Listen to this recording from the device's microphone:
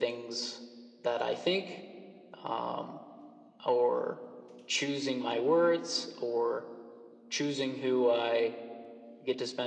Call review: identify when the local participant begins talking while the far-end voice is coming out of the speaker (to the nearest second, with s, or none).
none